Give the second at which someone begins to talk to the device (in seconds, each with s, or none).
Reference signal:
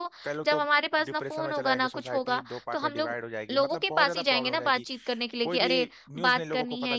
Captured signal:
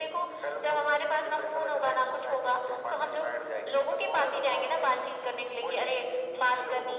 none